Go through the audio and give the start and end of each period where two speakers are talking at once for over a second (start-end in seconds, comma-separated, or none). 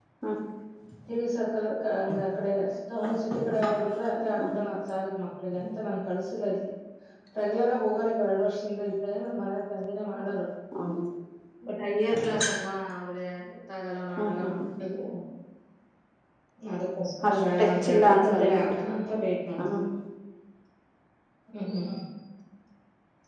17.3-18.6